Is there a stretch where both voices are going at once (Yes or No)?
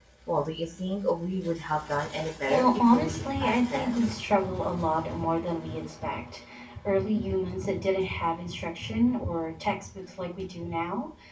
Yes